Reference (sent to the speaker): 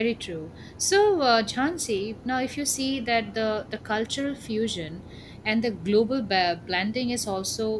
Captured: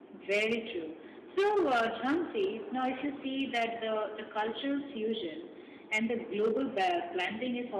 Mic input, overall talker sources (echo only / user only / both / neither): echo only